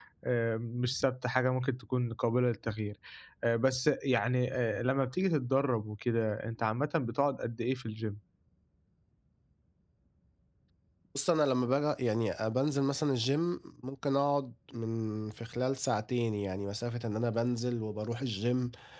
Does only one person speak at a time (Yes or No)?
Yes